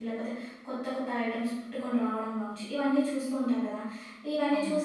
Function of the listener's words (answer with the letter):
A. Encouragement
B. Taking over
A